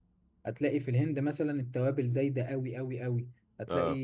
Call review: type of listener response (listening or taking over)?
listening